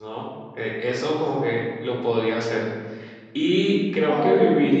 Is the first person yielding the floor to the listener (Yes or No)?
No